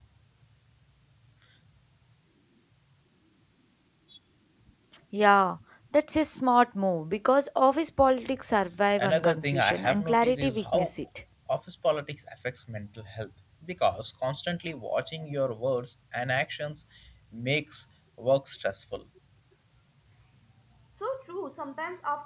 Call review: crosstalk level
present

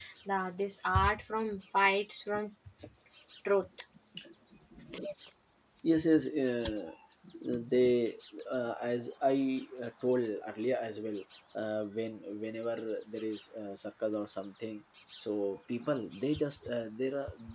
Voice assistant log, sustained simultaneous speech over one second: none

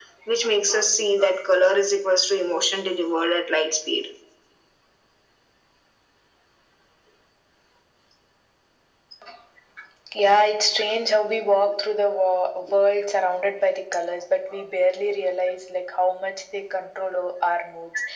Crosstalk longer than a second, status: none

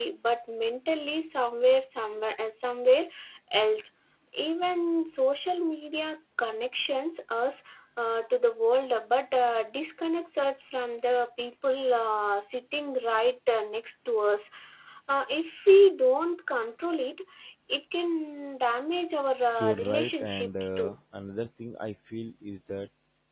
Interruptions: present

